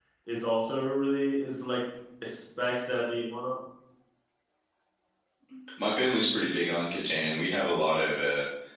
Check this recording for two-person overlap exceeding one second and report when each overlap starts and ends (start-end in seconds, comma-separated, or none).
none